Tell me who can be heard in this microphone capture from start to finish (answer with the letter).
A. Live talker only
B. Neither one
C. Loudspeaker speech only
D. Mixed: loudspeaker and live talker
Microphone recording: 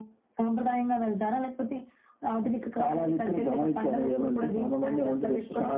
C